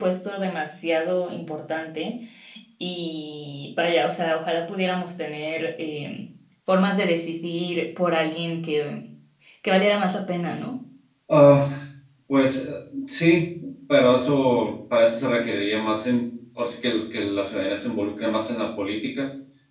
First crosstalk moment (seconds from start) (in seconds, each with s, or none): none